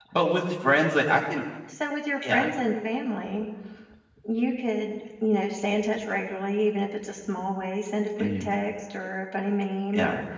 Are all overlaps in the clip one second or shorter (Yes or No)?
Yes